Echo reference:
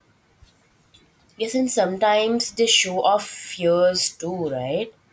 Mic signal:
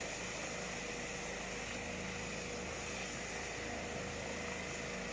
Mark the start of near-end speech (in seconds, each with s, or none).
none